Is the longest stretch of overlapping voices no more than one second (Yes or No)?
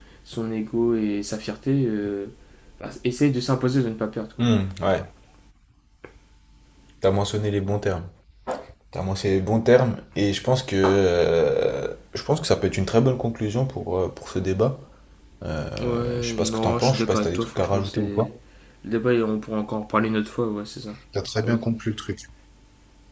No